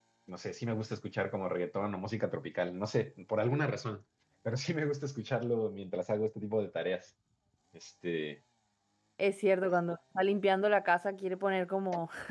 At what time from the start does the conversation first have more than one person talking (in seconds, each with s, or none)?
none